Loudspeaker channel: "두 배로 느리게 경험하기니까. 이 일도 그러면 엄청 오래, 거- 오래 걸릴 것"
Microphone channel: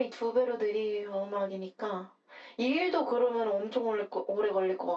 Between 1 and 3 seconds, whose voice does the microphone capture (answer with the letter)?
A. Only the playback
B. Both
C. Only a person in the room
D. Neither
A